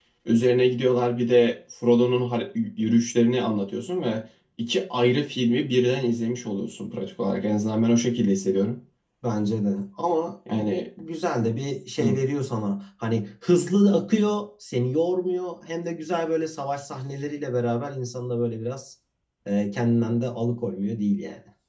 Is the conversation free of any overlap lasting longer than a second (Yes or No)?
Yes